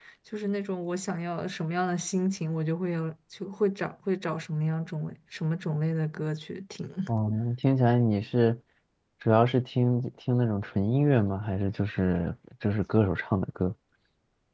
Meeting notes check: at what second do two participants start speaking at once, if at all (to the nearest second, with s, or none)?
none